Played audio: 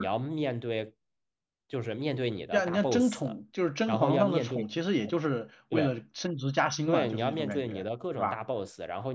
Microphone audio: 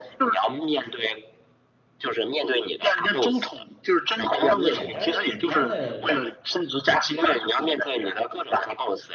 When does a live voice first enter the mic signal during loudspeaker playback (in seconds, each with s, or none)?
4.7 s